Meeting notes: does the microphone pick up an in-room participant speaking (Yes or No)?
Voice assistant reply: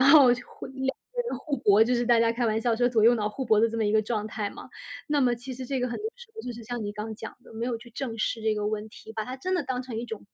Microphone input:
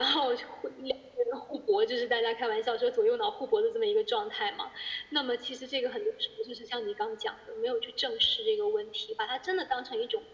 No